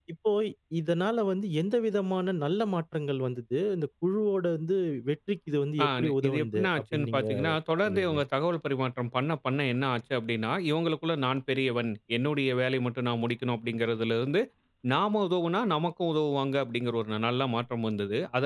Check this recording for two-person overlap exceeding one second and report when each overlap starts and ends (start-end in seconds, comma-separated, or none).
5.8-7.3